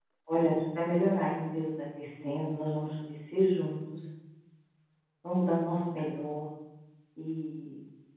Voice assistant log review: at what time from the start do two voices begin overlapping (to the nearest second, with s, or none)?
none